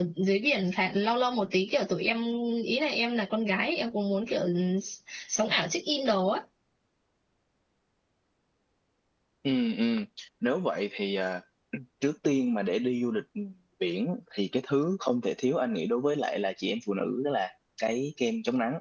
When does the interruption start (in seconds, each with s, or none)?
none